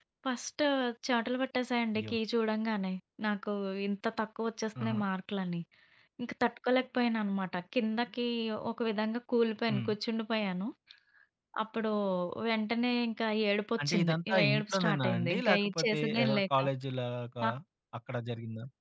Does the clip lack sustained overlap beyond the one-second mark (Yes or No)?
No